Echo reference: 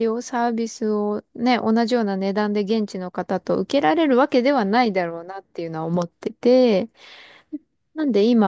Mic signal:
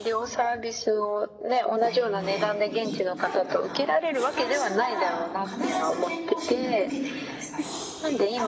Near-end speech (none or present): present